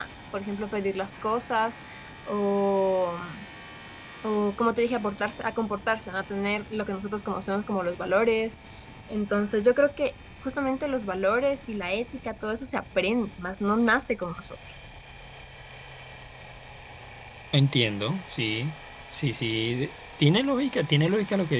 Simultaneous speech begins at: none

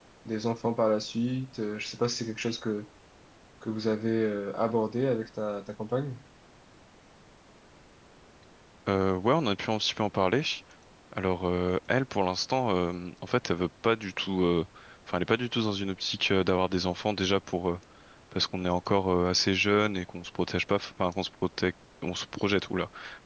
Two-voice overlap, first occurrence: none

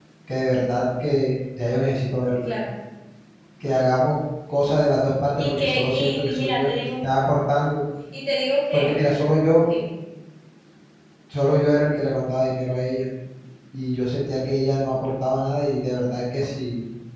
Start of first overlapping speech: 5.4 s

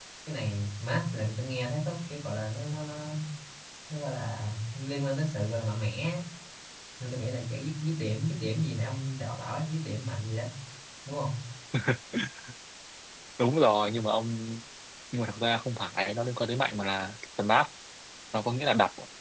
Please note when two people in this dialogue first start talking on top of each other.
none

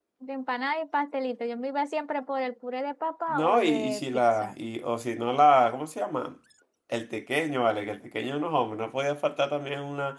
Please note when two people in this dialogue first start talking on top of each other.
3.3 s

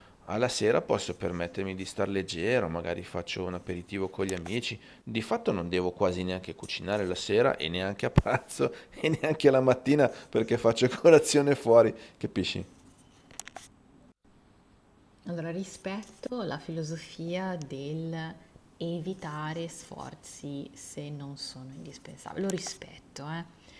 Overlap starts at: none

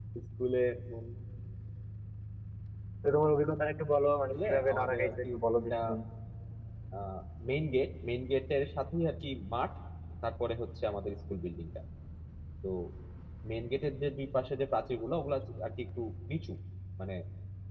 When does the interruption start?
4.3 s

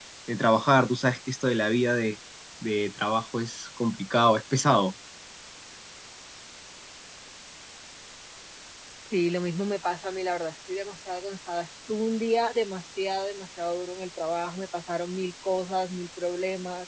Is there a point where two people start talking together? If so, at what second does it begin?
none

